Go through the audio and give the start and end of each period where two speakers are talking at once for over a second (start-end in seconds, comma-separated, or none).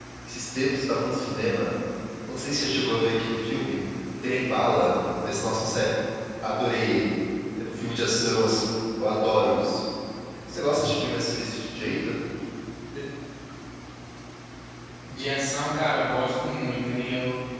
none